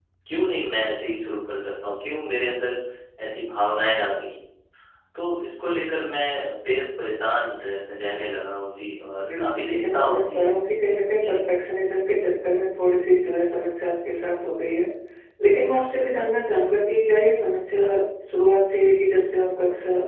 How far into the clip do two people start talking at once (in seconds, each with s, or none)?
9.2 s